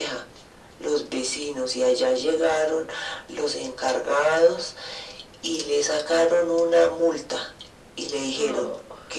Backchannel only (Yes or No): Yes